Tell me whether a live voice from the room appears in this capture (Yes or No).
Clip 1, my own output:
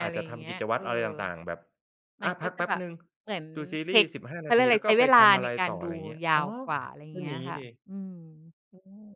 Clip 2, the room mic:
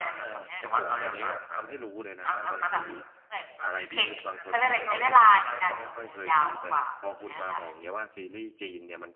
Yes